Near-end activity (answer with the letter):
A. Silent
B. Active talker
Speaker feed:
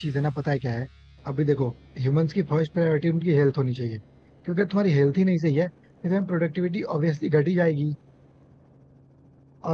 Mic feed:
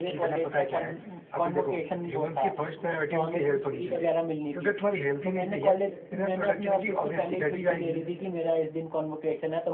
B